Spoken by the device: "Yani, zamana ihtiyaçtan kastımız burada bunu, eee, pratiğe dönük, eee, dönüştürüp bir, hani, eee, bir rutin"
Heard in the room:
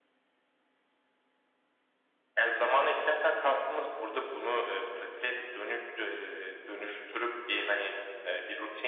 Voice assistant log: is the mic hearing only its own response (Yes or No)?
Yes